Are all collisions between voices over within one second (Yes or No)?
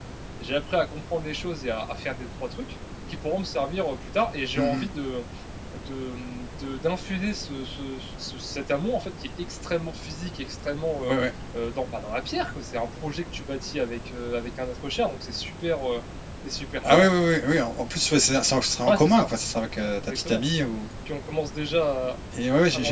Yes